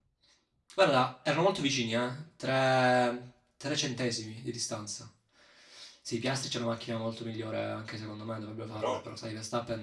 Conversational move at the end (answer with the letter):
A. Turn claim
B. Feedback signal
B